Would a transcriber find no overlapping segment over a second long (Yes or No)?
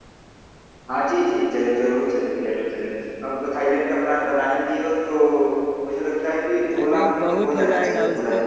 No